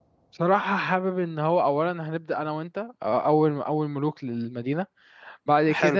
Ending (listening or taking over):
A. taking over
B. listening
A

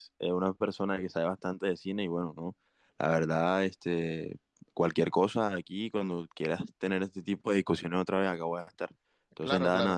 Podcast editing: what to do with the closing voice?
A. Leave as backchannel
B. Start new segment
A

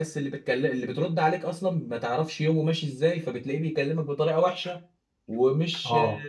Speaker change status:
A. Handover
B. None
B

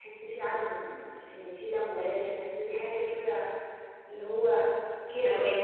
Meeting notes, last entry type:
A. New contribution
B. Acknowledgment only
A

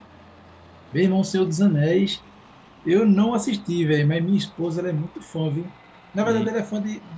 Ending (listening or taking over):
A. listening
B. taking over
A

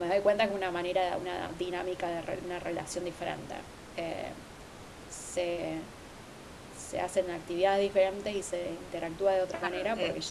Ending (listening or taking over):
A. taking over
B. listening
A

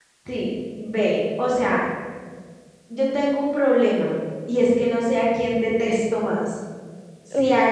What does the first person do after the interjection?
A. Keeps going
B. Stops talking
A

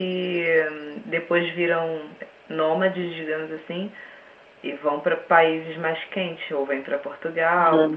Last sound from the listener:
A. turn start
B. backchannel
B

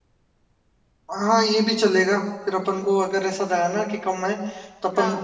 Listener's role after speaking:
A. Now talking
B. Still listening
B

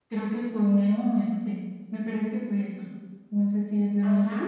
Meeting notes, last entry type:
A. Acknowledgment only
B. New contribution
B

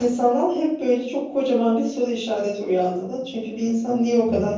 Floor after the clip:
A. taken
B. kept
B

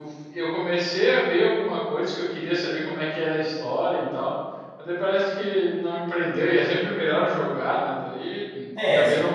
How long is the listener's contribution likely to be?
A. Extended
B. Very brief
A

